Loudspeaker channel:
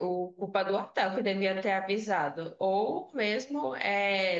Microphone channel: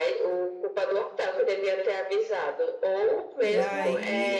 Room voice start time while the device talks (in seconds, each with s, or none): 3.4 s